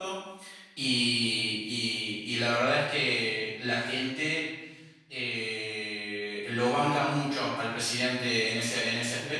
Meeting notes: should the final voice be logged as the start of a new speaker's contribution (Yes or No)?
Yes